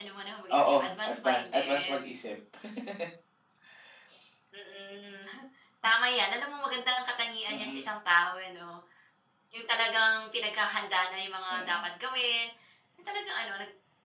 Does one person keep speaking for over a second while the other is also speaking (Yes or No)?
Yes